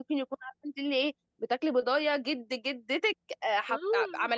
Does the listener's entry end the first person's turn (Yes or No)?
Yes